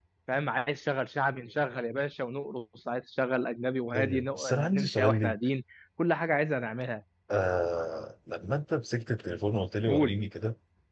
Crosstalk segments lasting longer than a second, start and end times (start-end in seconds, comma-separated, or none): 4.0-5.4